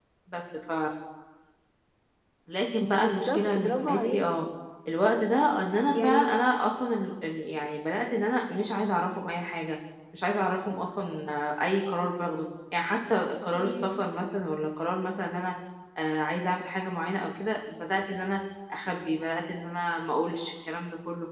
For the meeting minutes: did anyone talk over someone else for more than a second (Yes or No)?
Yes